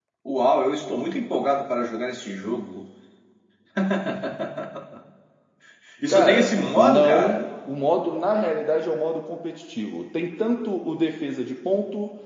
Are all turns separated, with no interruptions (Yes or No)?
No